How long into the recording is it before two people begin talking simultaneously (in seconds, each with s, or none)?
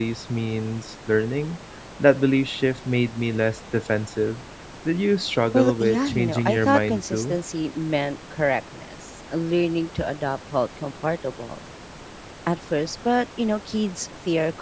5.5 s